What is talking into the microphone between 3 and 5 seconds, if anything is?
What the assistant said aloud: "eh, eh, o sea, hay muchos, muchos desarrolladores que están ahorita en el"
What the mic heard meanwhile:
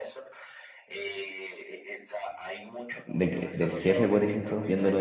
both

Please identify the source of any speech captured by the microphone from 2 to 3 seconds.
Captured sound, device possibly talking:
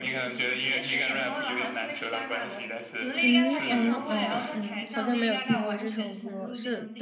echo only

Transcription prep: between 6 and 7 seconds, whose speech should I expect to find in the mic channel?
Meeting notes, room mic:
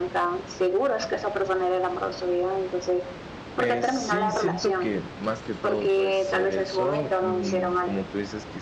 both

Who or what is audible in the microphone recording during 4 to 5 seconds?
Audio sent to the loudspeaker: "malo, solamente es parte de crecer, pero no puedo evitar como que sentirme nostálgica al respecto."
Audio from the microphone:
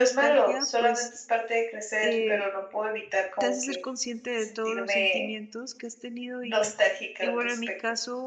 both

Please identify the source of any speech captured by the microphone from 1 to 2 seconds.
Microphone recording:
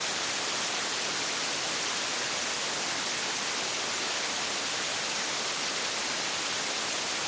neither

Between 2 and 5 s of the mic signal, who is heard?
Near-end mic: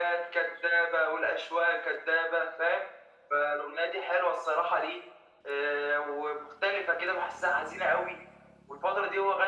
echo only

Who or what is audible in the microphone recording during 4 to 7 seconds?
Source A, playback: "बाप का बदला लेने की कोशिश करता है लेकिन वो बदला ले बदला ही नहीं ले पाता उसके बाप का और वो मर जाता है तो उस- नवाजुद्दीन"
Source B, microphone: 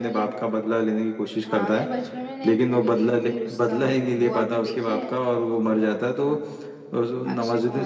both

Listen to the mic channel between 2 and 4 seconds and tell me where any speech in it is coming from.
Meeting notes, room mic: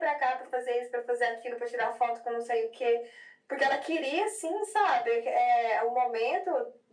echo only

